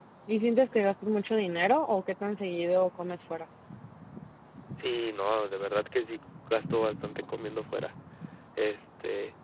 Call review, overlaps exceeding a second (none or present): none